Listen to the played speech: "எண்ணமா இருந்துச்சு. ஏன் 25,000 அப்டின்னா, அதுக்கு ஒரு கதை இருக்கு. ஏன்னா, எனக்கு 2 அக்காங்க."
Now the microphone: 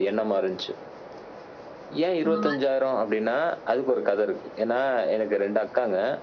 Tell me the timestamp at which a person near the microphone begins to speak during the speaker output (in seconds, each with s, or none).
2.2 s